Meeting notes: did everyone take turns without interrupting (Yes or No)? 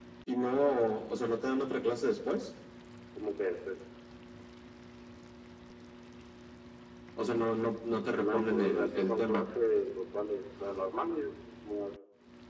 No